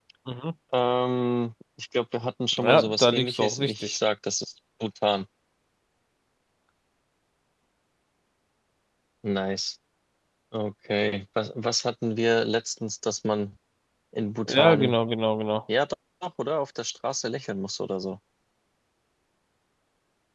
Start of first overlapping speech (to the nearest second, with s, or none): 3 s